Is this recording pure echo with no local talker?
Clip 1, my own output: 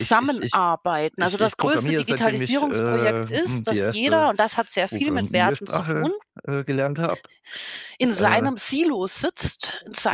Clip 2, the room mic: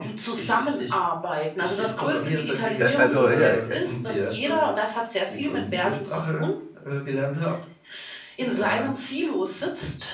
No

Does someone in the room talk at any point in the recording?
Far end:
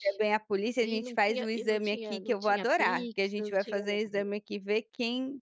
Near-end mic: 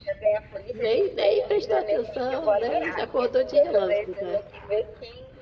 Yes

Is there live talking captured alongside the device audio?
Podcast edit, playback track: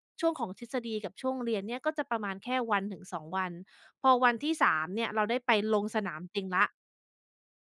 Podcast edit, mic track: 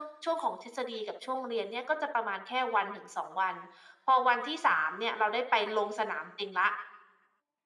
No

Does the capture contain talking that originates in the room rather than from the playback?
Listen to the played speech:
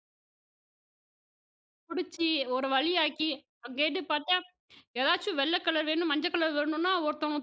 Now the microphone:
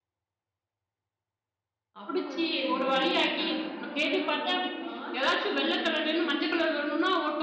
Yes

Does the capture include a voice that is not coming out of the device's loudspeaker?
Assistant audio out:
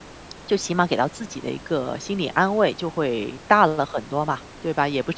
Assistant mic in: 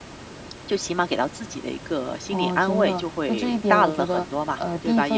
Yes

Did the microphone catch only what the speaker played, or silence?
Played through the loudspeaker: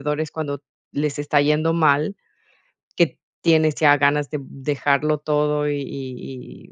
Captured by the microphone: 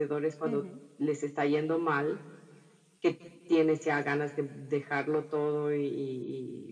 No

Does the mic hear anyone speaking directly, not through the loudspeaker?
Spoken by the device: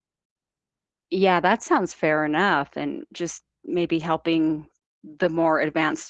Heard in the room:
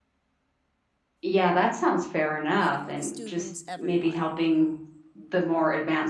Yes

